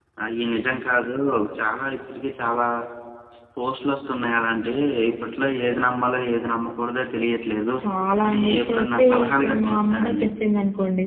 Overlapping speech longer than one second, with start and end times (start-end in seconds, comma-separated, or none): 8.2-10.3